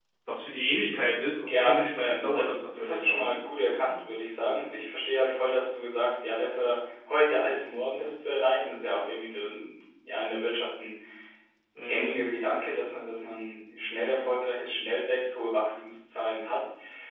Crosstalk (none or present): present